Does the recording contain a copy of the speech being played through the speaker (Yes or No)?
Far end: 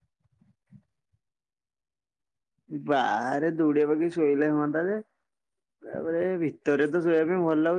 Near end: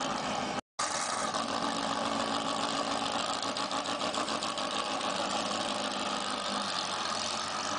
No